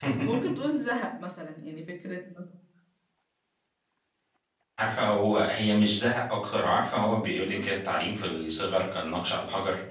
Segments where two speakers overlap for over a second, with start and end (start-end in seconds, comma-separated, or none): none